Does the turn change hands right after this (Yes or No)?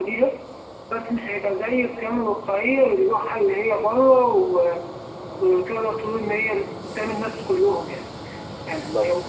No